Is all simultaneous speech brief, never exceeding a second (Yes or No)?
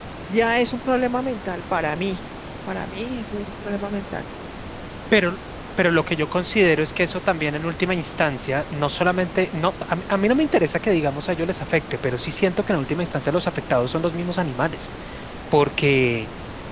Yes